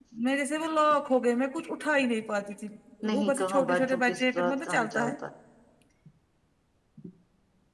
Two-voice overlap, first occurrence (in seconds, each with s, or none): 3.2 s